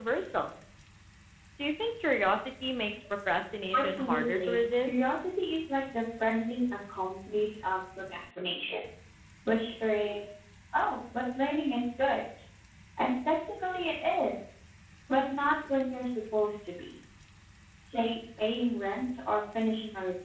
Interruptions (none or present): present